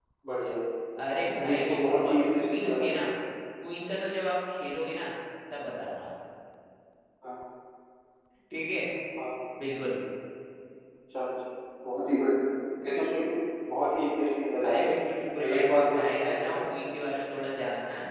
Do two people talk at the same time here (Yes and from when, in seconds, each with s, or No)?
Yes, from 1.4 s